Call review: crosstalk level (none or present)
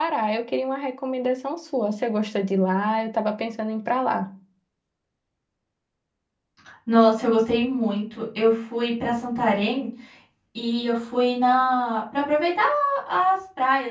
none